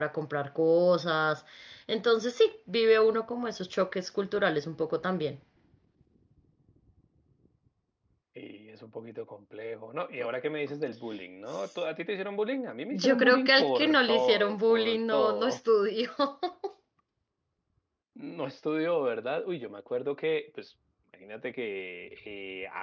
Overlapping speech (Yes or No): Yes